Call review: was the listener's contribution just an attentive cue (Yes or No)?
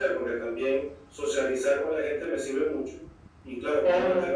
Yes